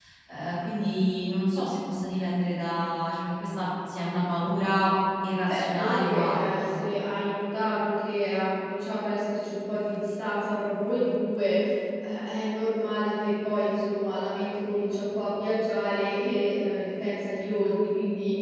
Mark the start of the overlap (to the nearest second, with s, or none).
5 s